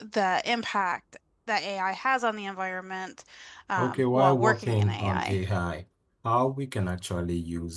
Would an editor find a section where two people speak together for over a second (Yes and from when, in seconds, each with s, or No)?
Yes, from 3.8 s